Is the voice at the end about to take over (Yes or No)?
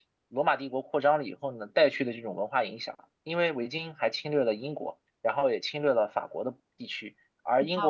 No